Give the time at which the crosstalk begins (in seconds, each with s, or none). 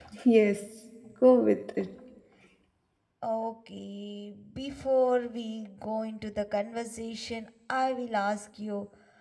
none